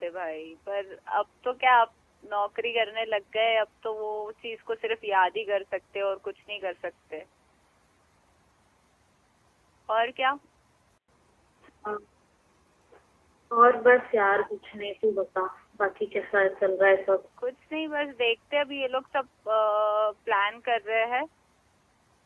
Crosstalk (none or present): none